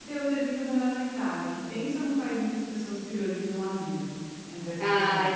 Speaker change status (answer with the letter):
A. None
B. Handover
B